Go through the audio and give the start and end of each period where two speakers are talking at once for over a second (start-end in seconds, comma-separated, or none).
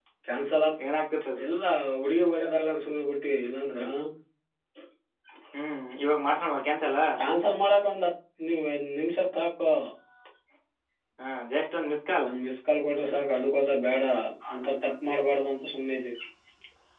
none